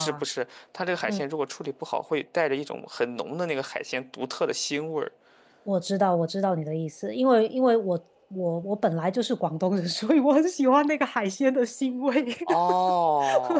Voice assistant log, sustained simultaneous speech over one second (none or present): none